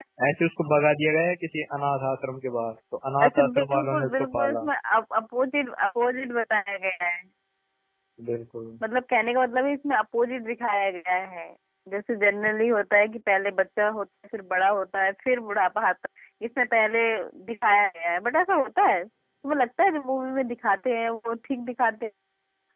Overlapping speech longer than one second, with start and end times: 3.2-4.7

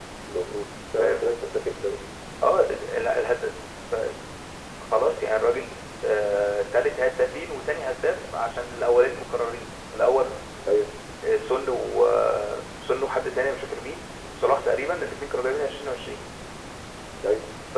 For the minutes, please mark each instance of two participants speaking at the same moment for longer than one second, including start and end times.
none

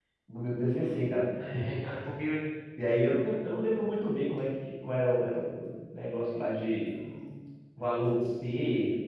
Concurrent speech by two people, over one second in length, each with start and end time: none

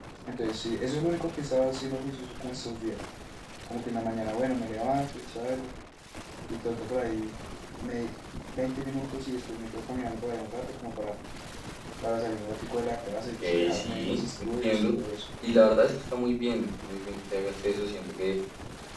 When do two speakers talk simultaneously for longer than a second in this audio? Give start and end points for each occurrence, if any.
13.4-14.9

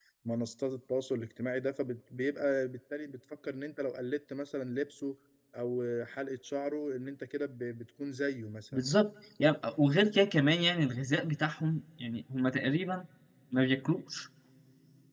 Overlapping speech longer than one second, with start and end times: none

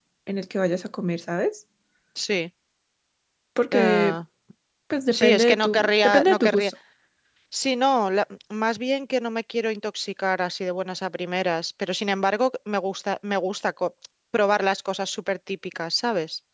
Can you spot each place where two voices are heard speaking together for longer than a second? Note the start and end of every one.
5.1-6.7

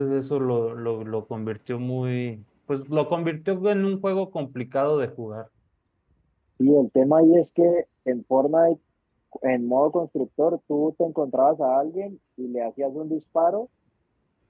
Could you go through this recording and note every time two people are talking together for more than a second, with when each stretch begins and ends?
none

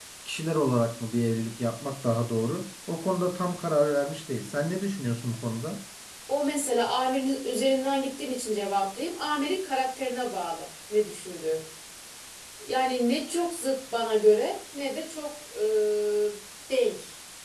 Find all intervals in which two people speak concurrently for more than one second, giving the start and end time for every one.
none

